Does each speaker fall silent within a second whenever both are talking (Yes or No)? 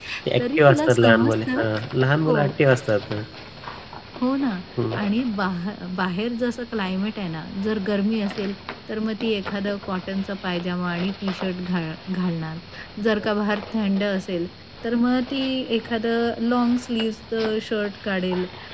No